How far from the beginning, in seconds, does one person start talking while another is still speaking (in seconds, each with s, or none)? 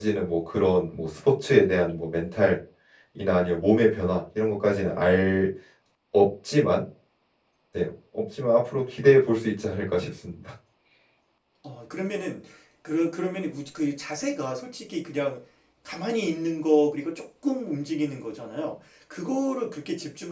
none